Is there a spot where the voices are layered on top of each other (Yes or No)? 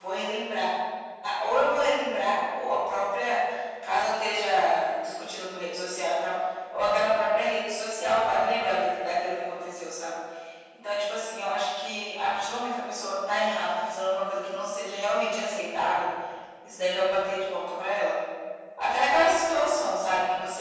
No